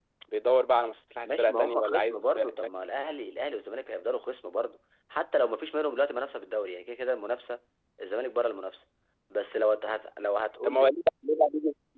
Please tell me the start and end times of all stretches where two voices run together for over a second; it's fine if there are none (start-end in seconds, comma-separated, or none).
1.2-2.5